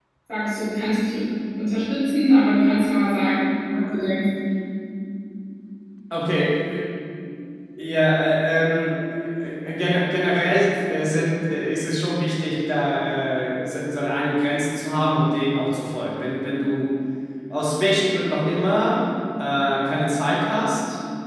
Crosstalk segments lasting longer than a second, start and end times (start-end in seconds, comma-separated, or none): none